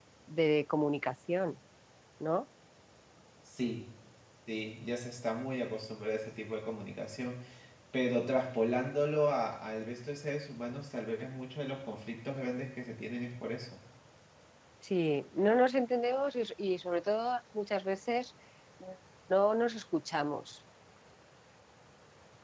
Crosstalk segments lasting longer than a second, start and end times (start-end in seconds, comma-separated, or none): none